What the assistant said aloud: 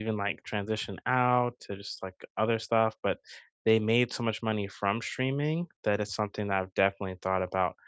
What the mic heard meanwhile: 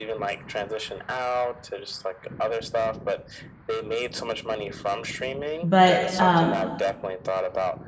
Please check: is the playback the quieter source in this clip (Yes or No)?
Yes